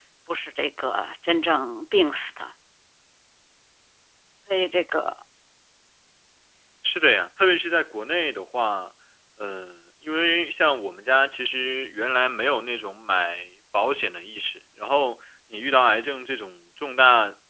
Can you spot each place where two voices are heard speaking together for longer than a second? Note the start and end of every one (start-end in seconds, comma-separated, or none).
none